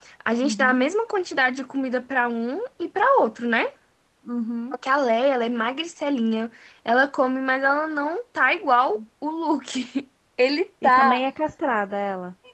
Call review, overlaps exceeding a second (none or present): none